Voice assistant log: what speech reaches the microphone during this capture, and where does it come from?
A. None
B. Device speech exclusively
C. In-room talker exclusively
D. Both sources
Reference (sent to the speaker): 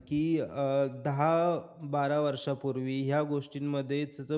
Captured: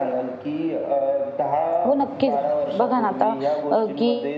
D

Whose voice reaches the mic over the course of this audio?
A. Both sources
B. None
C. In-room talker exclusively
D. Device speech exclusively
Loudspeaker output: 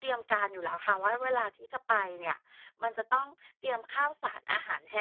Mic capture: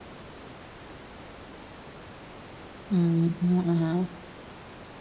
C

